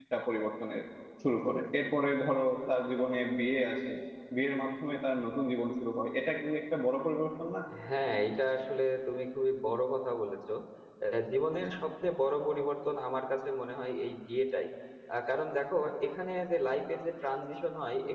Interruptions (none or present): none